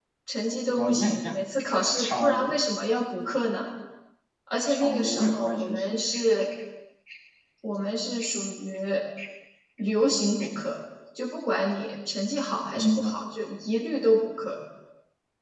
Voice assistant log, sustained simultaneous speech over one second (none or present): present